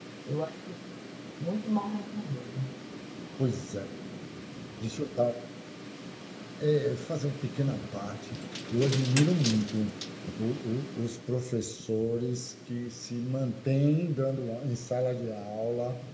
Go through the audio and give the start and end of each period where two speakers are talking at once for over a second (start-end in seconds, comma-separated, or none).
none